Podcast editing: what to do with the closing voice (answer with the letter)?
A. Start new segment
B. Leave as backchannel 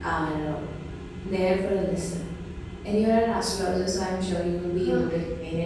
B